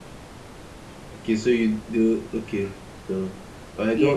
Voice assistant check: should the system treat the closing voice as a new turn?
No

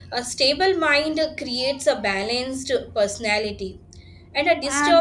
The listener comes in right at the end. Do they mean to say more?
No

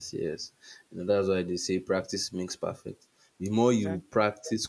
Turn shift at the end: No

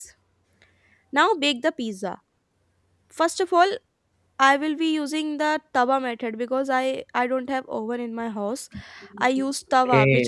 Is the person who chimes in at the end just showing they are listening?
Yes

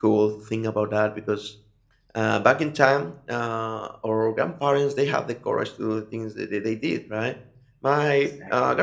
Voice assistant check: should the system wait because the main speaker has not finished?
Yes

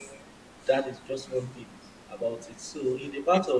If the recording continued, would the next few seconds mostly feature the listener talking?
No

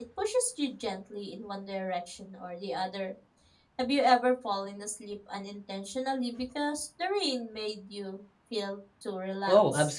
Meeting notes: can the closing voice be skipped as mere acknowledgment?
No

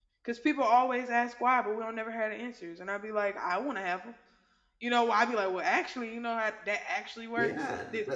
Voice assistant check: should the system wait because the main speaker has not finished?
No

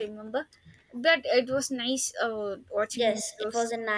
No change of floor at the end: No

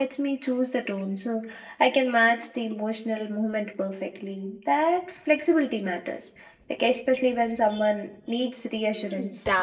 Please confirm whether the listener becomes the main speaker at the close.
Yes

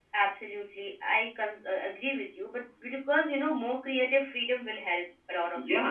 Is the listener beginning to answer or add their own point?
Yes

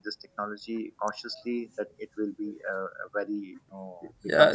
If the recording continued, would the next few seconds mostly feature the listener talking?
Yes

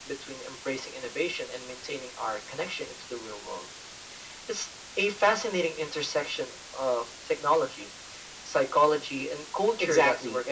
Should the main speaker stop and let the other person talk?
Yes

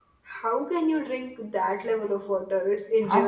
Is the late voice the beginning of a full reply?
Yes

